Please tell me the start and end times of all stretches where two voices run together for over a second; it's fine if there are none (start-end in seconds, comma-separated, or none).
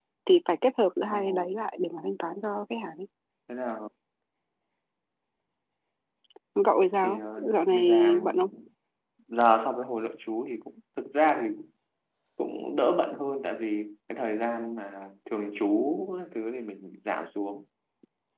7.0-8.3